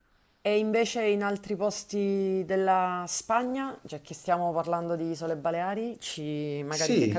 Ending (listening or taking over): taking over